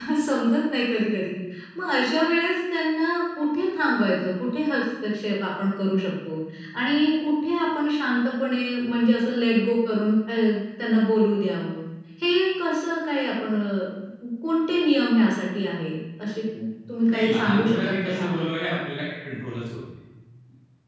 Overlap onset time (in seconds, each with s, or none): 17.1 s